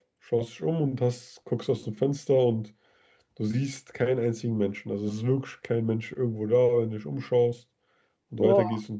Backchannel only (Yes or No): Yes